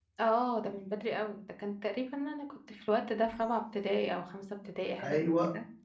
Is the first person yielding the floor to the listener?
Yes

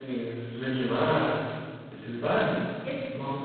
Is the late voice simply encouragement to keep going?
No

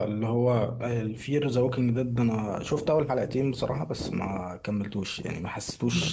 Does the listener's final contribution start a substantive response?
No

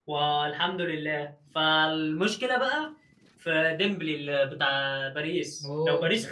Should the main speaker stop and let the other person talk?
No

